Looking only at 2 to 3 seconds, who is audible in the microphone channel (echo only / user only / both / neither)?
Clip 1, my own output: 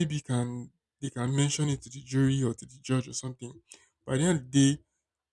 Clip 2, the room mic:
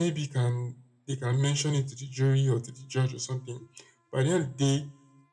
echo only